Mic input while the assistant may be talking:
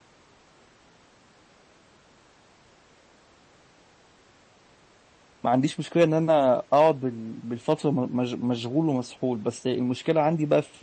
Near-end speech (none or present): present